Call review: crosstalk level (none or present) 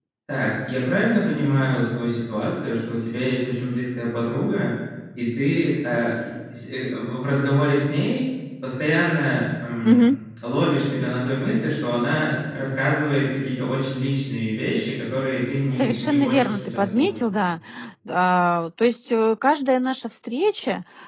present